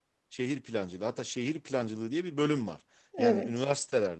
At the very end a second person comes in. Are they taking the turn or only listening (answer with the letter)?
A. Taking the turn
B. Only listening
B